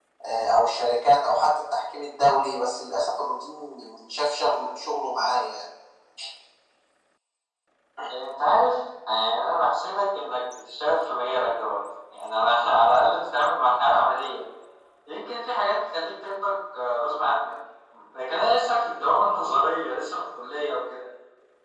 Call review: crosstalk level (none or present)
none